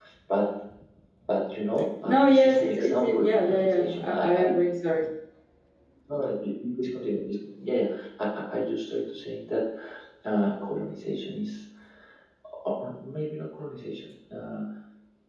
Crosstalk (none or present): present